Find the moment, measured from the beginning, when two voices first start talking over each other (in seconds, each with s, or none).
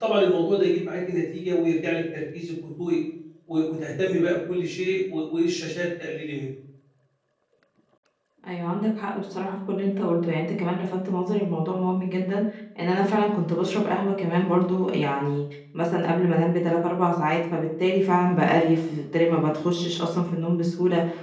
none